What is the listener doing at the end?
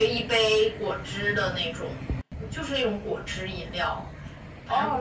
taking over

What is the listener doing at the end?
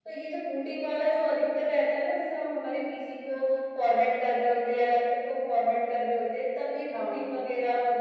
listening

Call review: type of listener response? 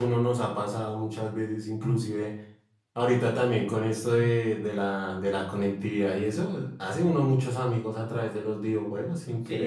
taking over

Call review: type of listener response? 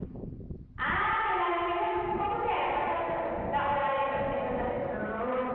taking over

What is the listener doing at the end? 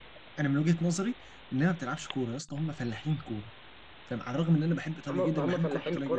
taking over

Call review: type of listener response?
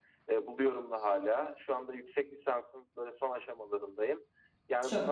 listening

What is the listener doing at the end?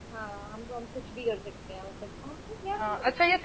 taking over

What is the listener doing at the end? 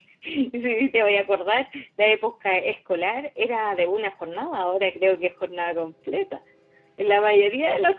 listening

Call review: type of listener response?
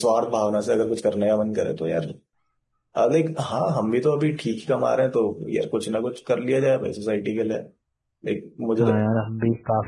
taking over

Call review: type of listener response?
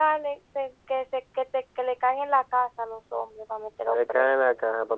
taking over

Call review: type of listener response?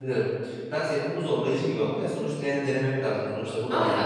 taking over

